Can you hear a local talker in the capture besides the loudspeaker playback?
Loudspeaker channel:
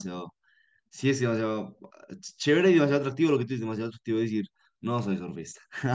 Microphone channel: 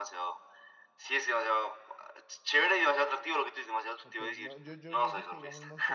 Yes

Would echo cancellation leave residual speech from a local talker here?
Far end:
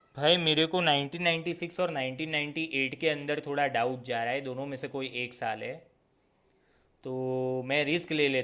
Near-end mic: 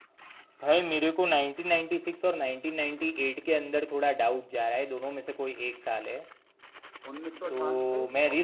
Yes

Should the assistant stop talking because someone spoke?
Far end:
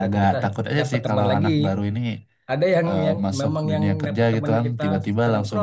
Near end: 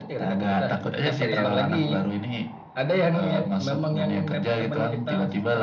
Yes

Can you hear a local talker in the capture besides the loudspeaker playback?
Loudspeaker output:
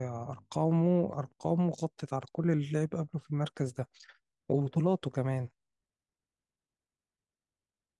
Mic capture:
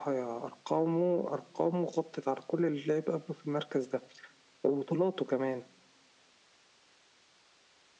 No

